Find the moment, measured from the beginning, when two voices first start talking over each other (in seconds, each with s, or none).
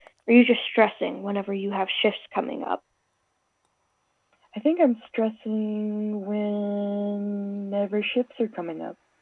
none